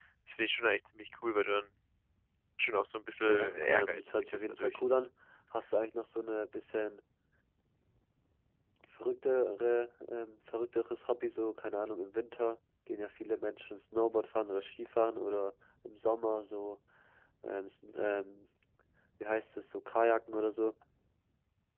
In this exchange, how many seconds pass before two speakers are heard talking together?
3.3 s

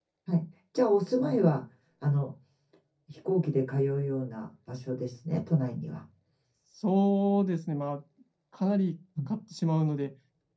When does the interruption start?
none

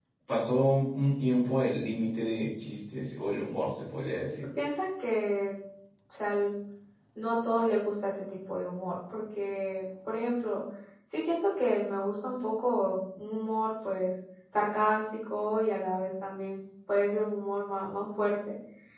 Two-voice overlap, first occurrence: none

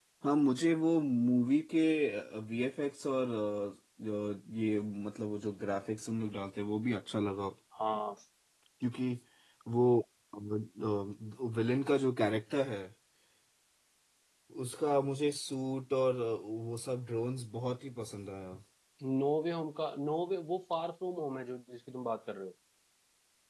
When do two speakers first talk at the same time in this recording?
none

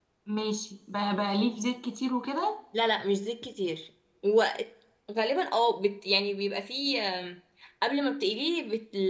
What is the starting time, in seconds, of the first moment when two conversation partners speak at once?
none

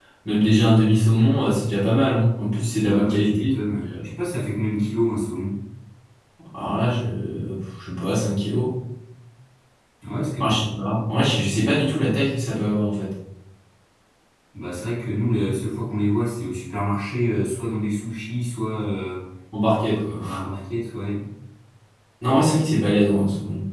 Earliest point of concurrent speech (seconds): 2.8 s

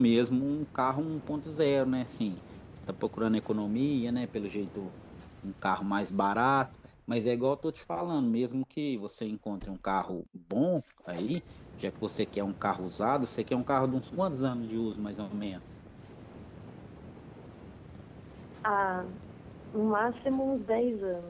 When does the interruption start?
none

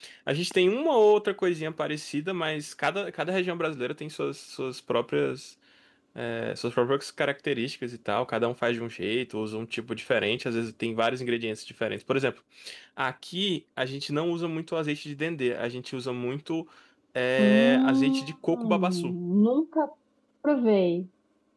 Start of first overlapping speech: 17.4 s

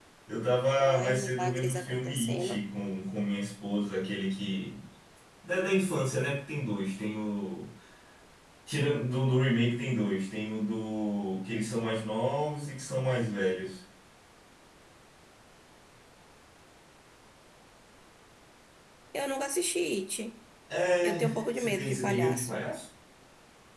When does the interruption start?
0.8 s

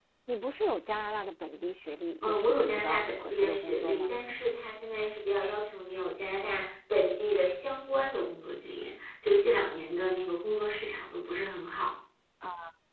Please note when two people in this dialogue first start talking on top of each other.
2.2 s

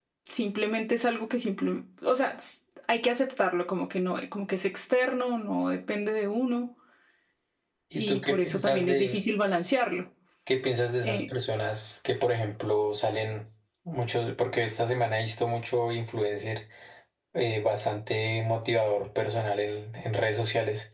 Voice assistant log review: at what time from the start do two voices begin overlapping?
8.0 s

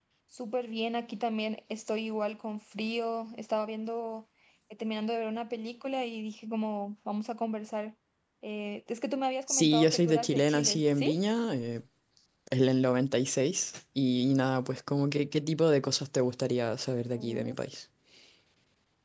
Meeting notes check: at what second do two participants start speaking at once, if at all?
9.5 s

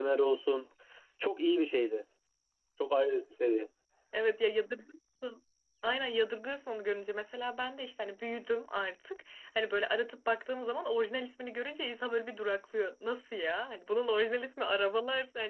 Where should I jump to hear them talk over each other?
none

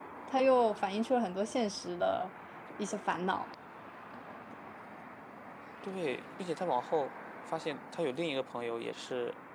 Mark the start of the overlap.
none

